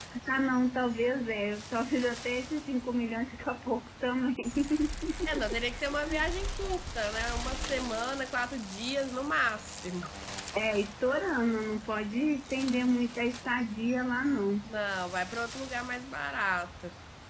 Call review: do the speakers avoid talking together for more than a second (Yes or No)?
Yes